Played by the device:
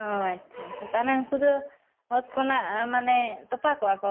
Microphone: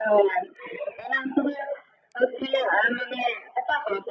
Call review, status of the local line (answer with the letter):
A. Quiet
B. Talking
A